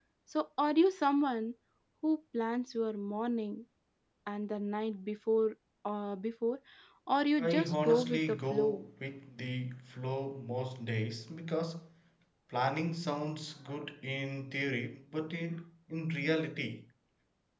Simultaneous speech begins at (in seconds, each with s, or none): 7.4 s